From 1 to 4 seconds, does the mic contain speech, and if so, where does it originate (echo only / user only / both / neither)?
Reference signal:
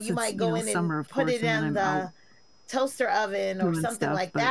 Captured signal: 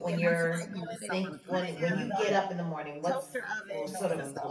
both